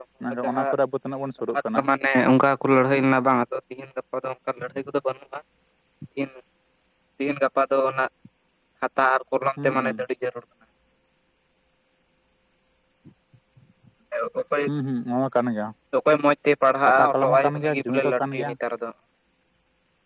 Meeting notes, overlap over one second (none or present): present